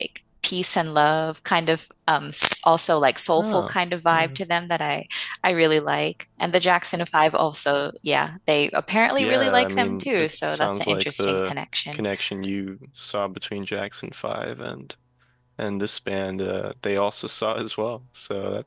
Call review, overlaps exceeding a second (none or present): present